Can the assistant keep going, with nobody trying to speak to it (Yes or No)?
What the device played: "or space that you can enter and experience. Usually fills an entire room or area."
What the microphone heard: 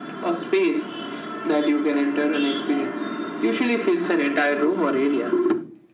Yes